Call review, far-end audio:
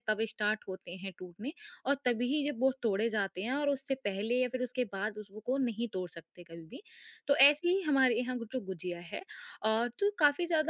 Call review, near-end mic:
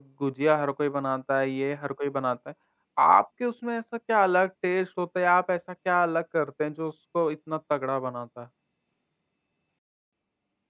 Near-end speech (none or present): present